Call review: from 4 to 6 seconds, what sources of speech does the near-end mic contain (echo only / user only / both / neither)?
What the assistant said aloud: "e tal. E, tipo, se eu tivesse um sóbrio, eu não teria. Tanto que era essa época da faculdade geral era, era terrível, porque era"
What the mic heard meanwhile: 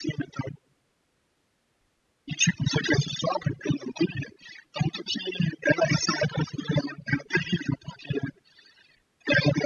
echo only